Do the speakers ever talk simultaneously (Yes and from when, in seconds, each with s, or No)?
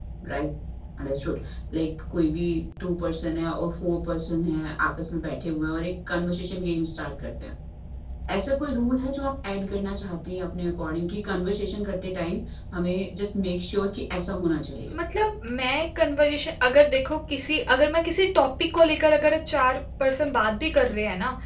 No